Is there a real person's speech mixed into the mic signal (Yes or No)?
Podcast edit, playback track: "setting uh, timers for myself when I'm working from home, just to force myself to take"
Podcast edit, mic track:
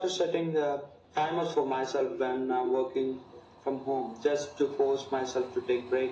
No